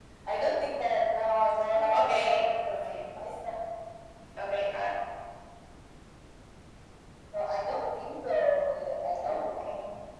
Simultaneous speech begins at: 1.9 s

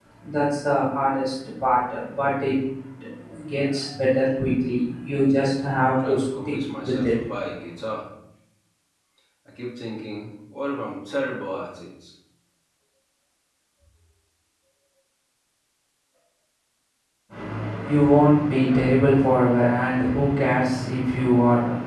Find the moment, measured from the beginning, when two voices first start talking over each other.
5.9 s

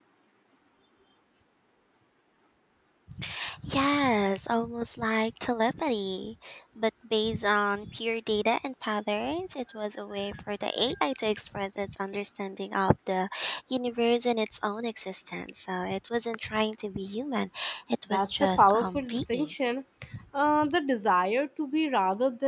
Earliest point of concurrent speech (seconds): 18.1 s

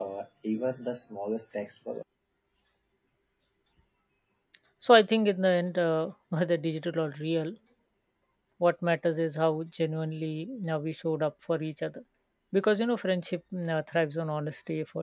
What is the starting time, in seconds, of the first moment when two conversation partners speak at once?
none

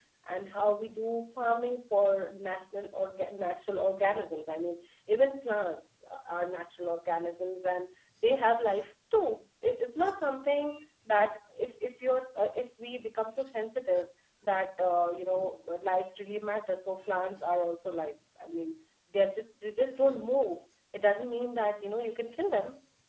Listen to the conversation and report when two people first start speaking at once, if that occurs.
none

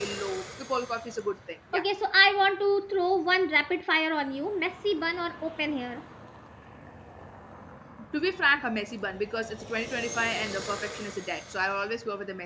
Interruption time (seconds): none

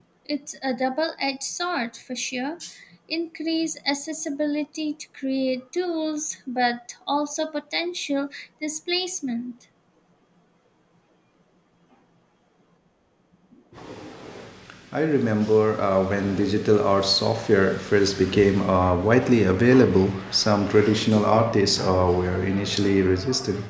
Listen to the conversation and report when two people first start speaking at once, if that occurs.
none

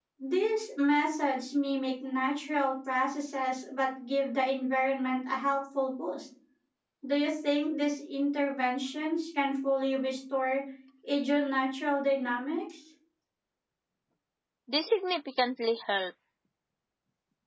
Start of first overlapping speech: none

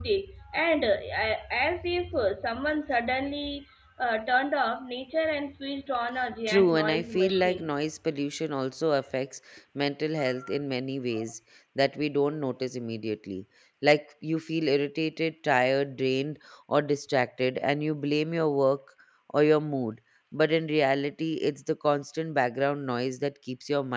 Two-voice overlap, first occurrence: 6.5 s

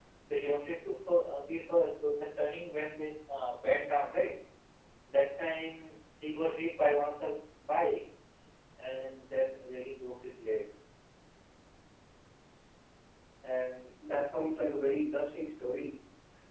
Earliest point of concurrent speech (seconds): none

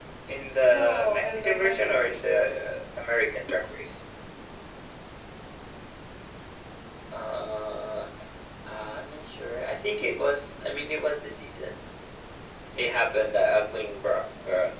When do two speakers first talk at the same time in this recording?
0.7 s

